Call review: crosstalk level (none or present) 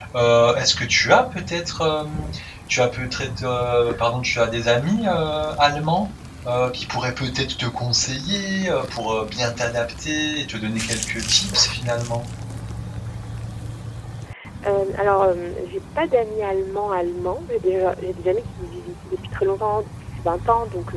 none